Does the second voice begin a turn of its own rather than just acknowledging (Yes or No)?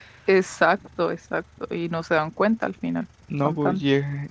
Yes